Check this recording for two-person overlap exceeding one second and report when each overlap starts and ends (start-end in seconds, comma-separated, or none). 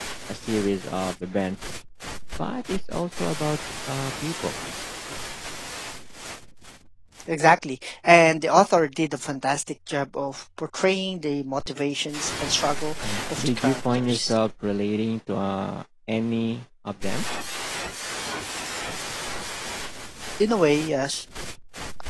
13.0-14.3